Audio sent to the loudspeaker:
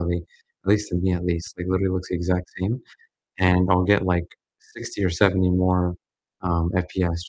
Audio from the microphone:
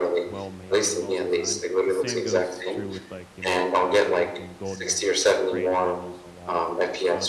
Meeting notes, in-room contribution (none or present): present